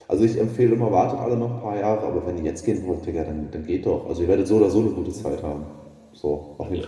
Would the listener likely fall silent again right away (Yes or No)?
No